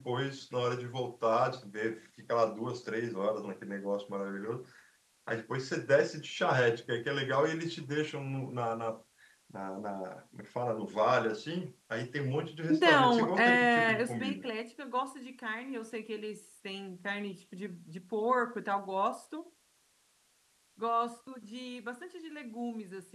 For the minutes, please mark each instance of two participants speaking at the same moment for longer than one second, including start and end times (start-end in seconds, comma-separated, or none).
12.7-14.4